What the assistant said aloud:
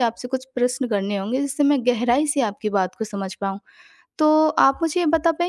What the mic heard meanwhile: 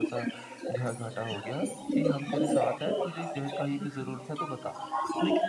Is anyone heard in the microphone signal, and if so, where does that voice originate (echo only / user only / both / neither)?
both